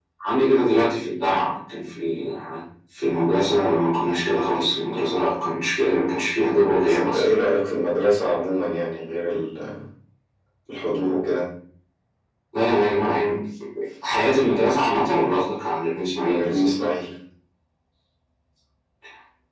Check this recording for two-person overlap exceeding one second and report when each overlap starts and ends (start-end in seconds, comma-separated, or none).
none